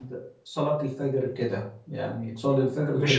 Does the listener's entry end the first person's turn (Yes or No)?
Yes